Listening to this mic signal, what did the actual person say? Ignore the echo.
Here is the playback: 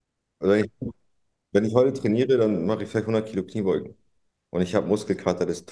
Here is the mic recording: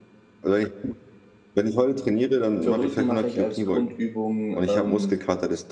für Rücken mache ich als Grundübung, ähm,

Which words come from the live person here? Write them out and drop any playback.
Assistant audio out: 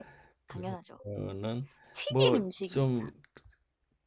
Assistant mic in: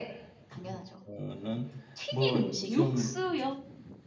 육수요?

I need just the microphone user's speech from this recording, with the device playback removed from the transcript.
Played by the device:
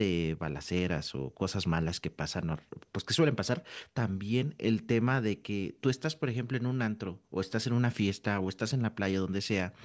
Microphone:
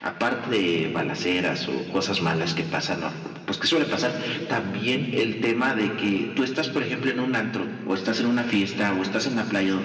none

